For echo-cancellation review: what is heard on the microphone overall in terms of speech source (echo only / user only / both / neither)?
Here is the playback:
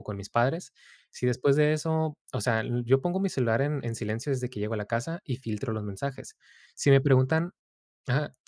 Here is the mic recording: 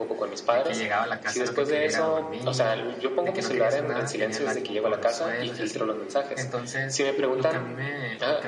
both